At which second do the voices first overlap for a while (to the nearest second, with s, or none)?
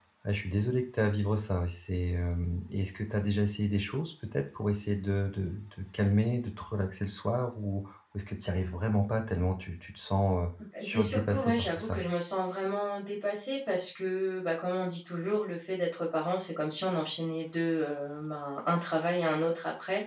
11 s